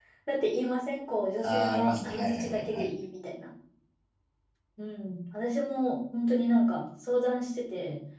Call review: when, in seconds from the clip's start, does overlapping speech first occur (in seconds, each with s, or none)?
1.4 s